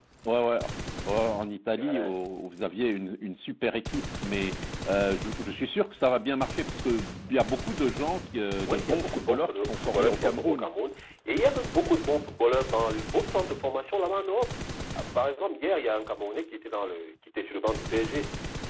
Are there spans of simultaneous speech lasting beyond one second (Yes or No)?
Yes